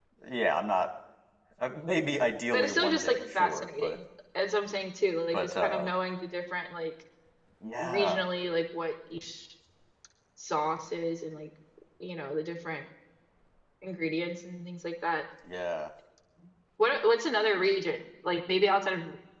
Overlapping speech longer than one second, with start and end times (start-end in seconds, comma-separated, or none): 2.5-4.0